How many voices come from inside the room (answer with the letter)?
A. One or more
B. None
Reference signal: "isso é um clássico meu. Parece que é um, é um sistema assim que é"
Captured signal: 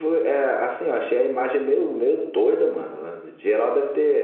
A